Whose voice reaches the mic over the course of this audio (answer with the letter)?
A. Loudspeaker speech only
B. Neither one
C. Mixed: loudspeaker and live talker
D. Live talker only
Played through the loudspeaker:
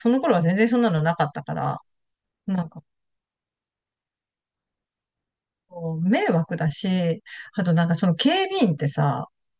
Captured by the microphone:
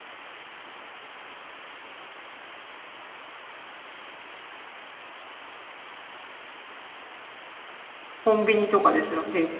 D